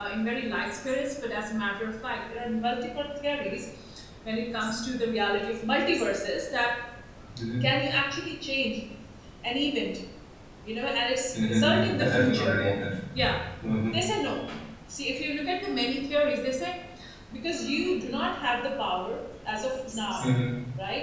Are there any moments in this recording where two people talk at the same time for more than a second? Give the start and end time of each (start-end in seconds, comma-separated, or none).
11.3-12.6